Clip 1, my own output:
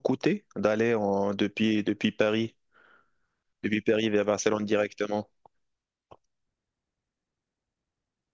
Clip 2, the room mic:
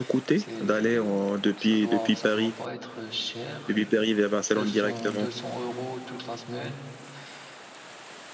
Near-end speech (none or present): present